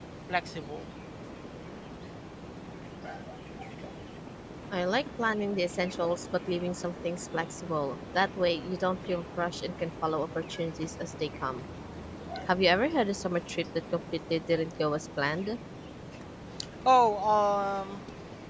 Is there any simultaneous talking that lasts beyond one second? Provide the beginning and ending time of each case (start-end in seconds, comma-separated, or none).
none